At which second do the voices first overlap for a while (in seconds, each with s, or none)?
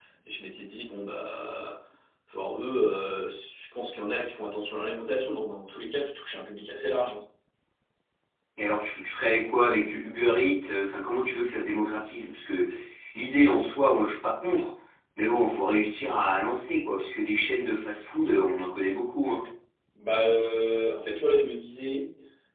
none